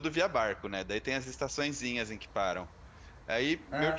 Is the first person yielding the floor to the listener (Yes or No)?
No